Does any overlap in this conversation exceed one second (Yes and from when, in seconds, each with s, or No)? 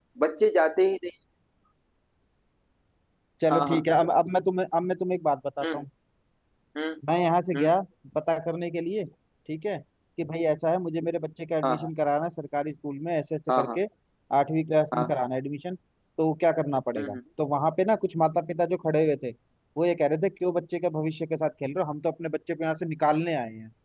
No